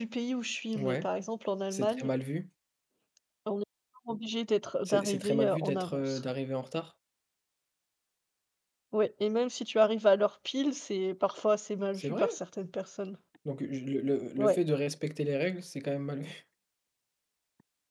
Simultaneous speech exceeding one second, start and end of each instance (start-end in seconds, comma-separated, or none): 4.8-6.2